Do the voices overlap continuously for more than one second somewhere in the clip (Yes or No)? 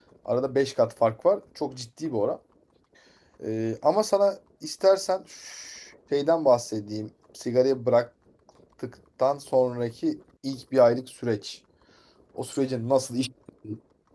No